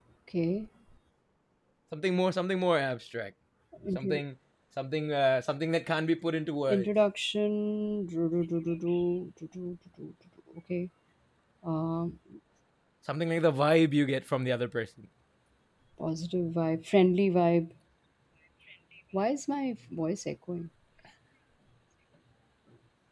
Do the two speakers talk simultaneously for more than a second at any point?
No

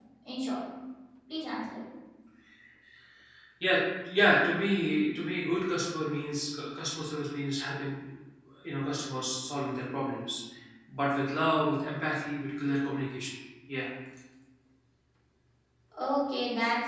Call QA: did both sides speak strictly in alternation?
Yes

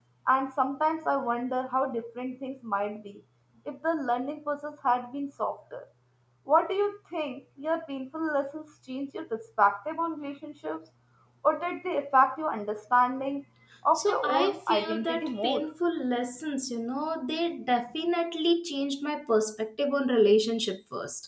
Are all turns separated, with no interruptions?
No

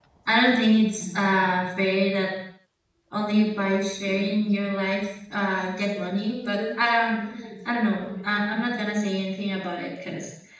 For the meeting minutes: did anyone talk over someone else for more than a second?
No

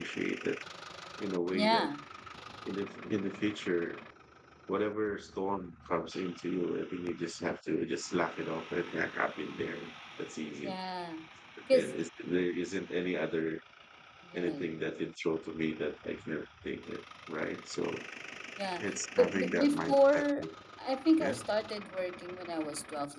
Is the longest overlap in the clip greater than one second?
Yes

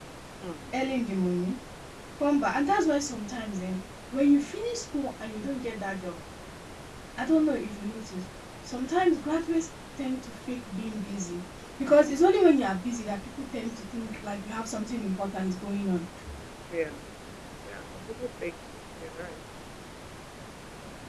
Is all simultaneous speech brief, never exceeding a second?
Yes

